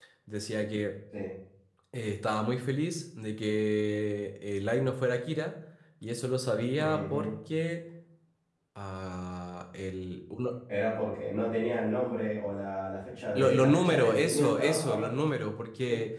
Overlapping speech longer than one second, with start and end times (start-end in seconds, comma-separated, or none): 13.4-15.1